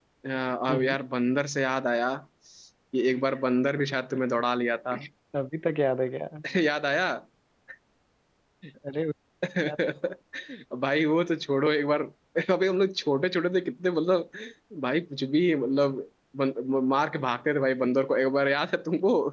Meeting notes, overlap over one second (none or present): none